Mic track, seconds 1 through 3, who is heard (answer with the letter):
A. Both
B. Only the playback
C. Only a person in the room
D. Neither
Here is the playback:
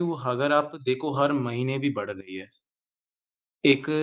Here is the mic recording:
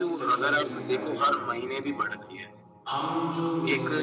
A